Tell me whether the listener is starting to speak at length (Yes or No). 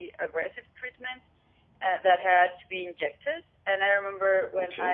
No